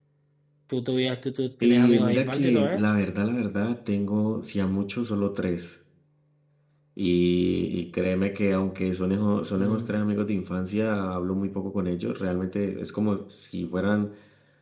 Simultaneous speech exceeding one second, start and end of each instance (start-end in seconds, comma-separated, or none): 1.6-2.8